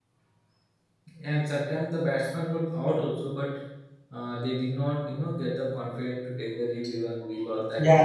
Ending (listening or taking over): taking over